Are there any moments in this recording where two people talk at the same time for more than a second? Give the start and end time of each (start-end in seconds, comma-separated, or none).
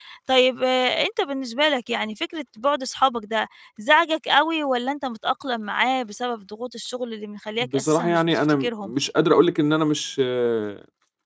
7.6-8.9